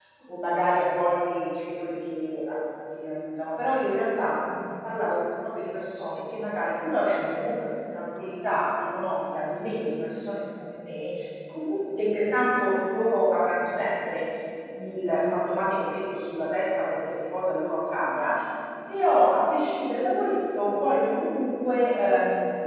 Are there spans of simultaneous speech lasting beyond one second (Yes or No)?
No